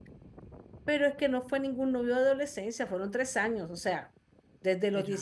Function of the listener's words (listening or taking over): listening